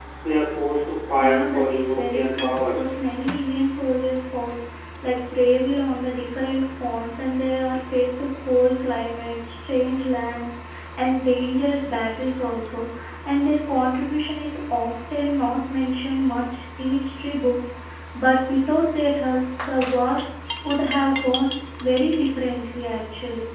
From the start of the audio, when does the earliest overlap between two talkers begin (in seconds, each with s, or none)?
1.1 s